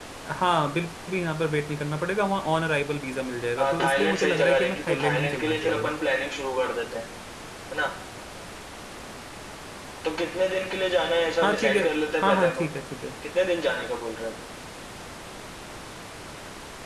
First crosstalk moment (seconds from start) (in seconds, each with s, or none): 3.6 s